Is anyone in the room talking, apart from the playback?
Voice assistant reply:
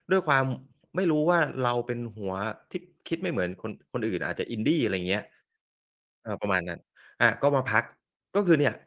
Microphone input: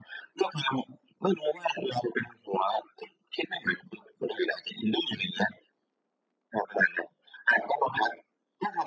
No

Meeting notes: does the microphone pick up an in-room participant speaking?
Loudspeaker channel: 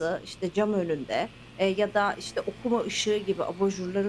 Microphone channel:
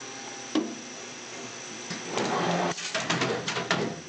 No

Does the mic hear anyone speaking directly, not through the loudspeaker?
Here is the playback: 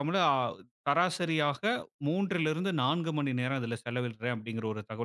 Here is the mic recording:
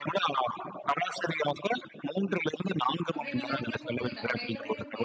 Yes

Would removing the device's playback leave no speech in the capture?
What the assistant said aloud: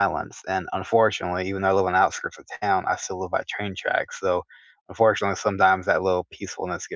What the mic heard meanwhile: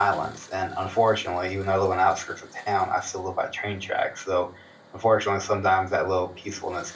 Yes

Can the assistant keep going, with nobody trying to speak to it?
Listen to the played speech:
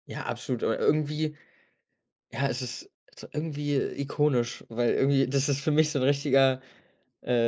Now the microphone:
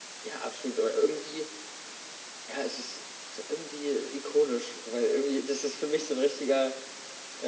Yes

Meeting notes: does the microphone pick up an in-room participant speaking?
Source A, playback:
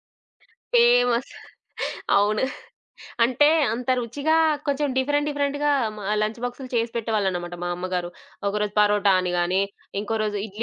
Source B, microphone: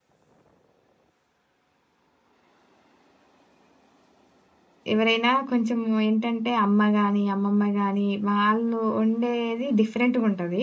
Yes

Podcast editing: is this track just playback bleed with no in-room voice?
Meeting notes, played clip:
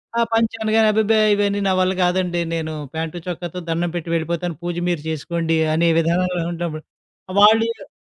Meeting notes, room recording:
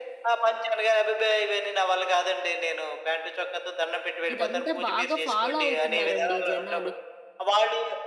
No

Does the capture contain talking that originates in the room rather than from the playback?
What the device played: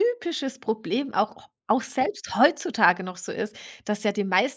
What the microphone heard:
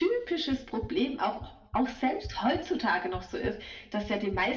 No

